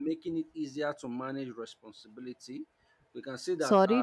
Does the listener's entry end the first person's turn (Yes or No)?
Yes